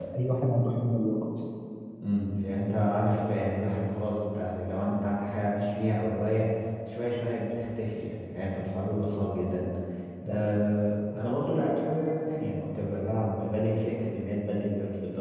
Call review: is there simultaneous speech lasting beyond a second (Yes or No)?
No